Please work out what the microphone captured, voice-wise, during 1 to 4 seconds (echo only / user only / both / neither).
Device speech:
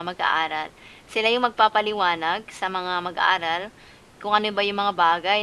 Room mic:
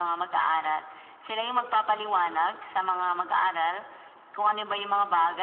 echo only